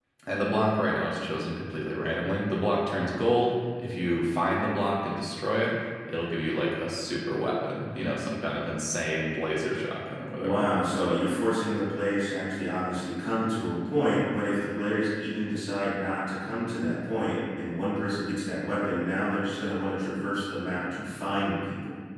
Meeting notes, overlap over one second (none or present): none